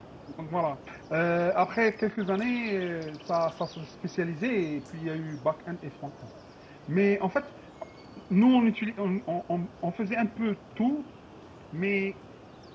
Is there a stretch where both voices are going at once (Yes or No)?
No